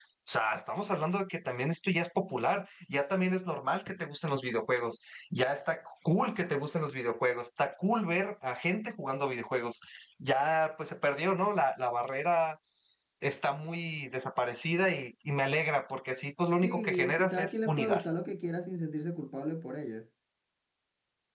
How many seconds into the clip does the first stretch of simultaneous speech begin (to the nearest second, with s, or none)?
17 s